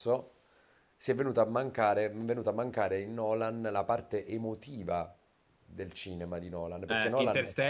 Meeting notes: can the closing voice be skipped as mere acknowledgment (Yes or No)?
No